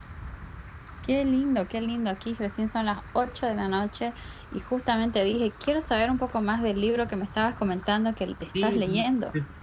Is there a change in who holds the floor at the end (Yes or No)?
Yes